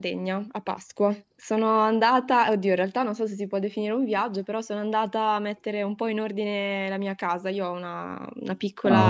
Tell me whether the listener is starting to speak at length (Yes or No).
No